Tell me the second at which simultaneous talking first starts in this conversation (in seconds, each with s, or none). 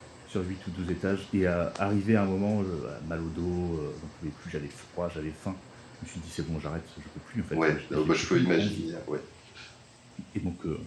7.5 s